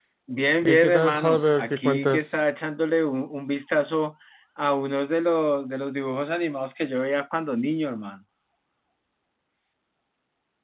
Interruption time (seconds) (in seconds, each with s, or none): 0.6 s